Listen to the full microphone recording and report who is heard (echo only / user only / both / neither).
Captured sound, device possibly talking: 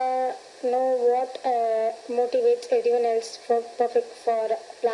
echo only